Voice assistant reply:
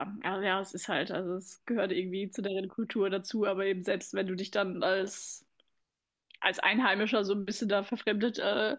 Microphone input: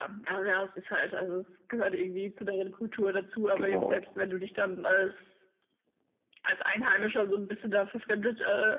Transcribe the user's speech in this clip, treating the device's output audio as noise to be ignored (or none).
Genau.